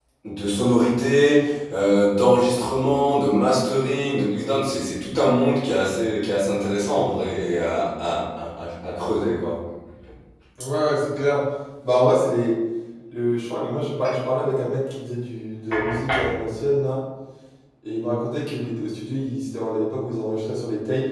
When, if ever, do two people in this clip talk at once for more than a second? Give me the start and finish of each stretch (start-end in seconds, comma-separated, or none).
none